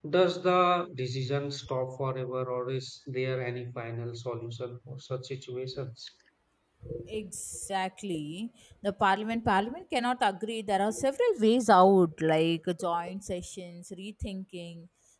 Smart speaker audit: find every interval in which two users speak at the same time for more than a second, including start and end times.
none

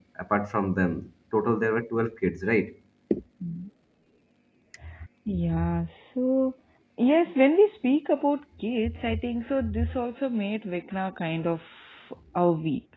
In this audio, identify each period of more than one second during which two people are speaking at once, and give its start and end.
none

